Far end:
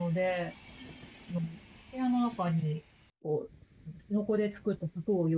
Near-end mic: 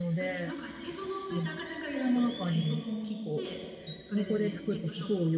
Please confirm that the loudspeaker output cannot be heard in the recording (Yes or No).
No